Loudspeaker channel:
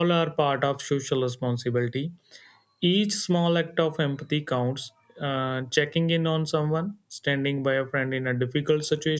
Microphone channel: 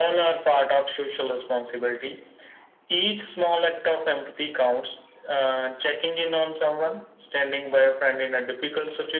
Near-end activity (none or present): none